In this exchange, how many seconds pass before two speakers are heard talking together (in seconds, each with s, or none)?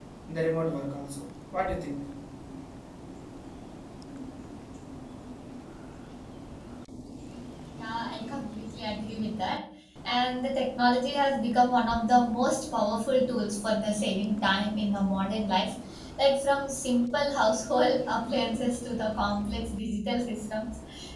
none